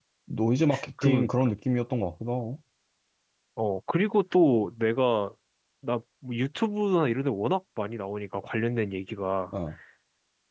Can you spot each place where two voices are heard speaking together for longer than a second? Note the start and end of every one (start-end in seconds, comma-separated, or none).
none